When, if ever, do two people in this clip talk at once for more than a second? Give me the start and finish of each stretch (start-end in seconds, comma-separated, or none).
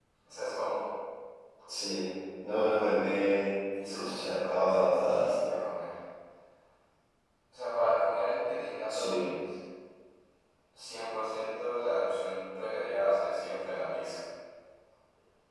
3.9-5.6